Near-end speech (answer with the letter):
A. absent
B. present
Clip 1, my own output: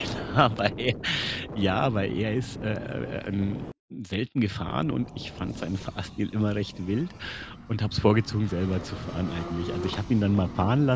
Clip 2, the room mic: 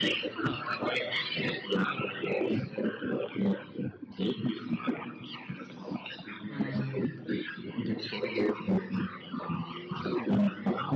B